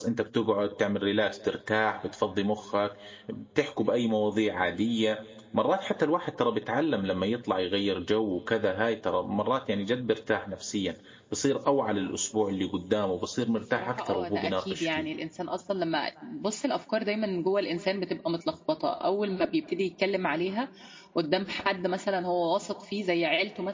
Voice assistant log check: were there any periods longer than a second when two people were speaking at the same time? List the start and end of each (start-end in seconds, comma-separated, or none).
13.8-15.1